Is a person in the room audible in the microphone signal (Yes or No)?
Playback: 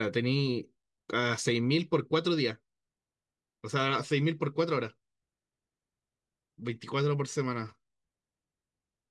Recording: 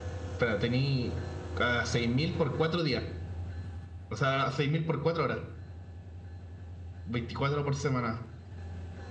No